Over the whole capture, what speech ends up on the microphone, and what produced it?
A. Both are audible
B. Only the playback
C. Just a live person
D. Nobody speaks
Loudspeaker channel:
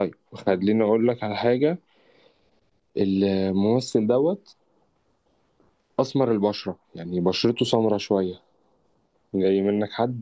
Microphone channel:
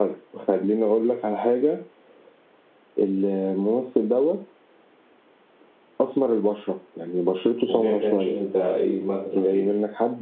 A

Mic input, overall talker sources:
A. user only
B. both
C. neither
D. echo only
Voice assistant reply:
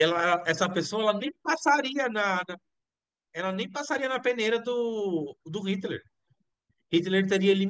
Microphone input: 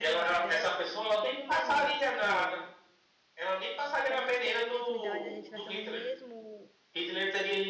B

